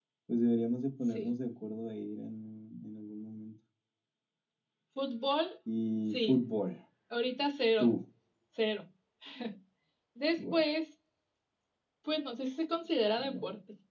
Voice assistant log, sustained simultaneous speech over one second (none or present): none